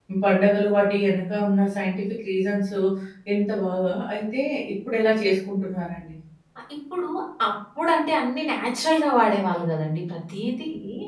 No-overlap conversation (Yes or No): Yes